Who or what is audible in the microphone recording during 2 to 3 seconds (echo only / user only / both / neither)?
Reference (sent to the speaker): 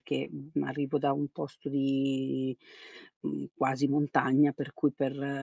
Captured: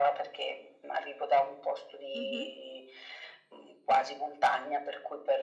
both